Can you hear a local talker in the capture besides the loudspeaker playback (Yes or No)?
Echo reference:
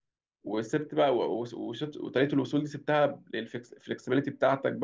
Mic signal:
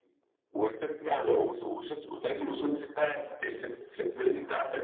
No